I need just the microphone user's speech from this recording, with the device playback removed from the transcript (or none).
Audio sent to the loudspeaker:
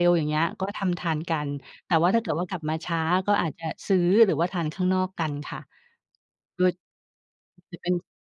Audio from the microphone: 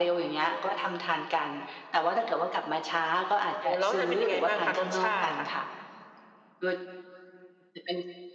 โอ้โฮ แล้ว ป เป็นยังไงบ้างคะ? รสชาติอะค่ะ